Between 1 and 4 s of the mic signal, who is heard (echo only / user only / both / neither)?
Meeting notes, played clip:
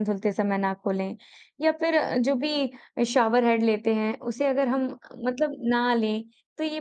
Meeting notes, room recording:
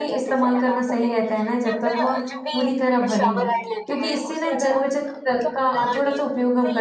both